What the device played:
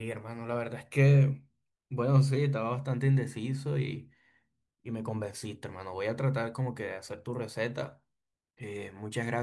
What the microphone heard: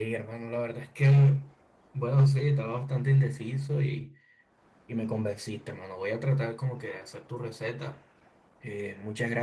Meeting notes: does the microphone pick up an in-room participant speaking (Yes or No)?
No